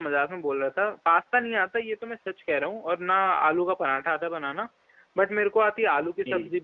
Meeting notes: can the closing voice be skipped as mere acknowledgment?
Yes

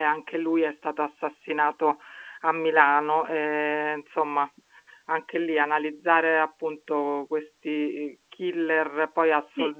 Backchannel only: Yes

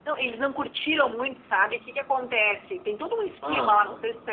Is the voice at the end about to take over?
No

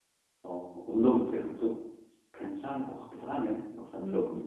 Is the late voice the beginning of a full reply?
Yes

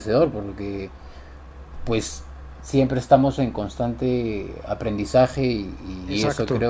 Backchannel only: Yes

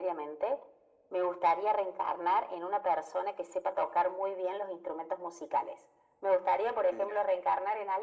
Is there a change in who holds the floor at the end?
No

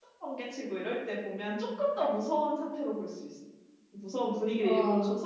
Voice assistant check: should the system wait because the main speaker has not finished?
Yes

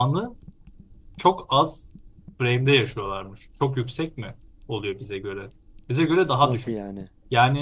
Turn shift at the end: No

